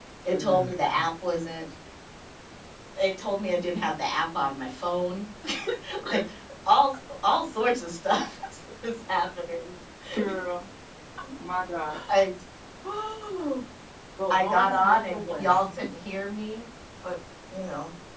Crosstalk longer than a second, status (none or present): present